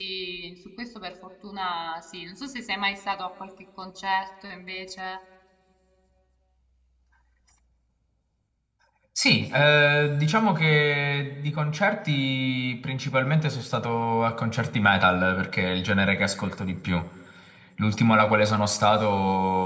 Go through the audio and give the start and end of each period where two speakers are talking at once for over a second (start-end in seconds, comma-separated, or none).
none